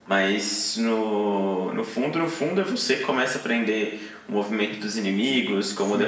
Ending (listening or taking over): taking over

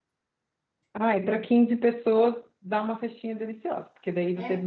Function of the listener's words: listening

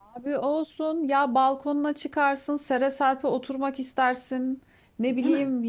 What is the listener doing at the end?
listening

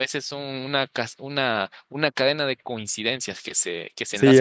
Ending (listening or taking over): taking over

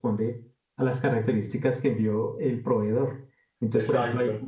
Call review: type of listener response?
listening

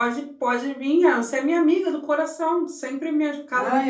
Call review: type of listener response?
taking over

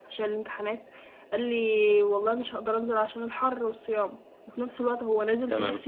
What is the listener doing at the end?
listening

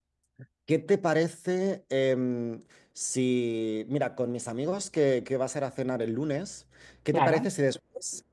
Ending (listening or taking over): listening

